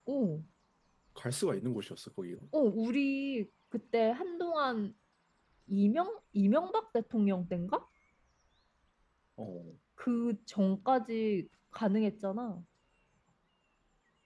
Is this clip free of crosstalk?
Yes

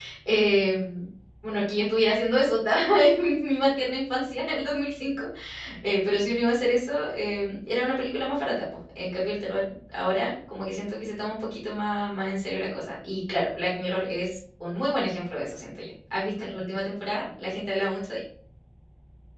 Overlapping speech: No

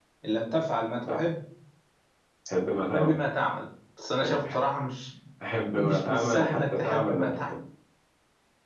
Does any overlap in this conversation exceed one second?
Yes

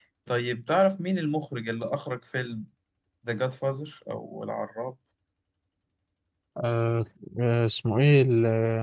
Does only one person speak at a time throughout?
Yes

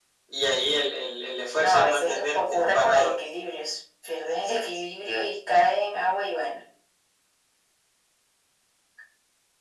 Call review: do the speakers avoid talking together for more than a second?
No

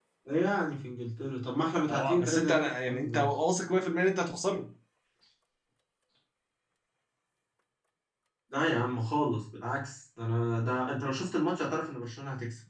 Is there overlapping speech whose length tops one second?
Yes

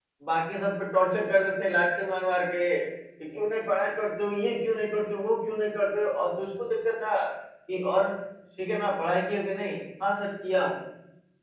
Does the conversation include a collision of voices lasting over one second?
No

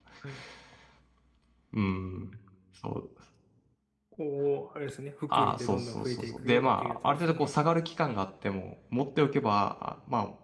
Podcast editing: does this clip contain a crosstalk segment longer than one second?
Yes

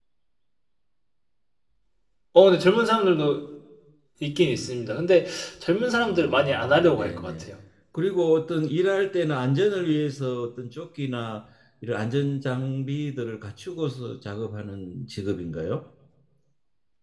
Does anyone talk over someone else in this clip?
Yes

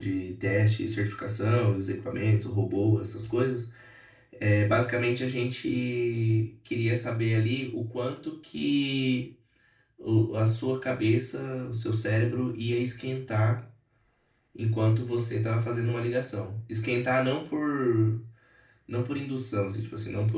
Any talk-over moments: No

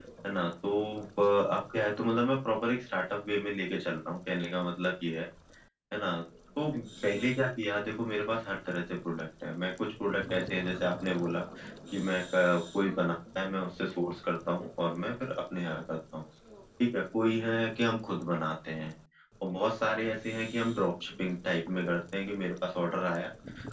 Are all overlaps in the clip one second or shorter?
Yes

